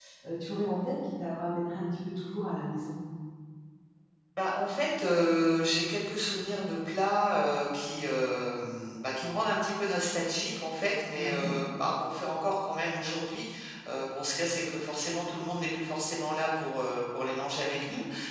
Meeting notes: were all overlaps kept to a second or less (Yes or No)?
Yes